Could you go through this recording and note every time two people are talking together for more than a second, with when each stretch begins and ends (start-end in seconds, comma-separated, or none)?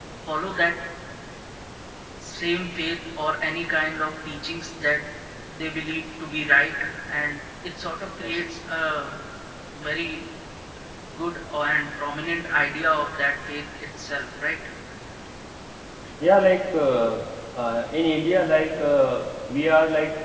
none